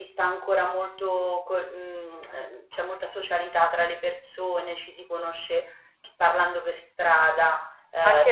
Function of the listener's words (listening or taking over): taking over